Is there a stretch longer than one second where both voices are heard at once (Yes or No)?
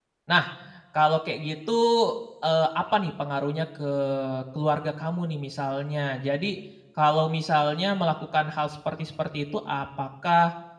No